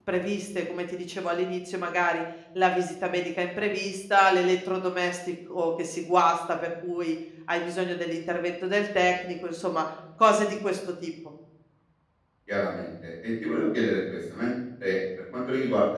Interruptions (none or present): none